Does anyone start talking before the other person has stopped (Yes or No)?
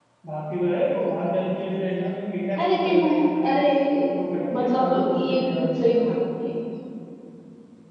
Yes